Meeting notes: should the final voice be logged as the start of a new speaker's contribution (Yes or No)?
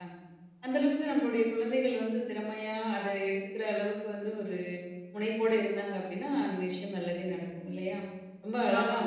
No